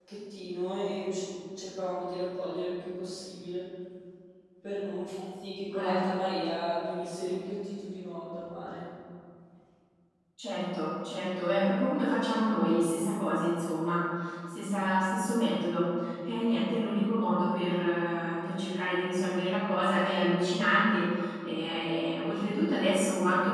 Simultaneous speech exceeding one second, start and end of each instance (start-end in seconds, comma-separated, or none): none